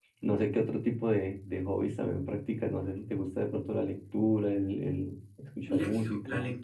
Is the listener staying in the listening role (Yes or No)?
No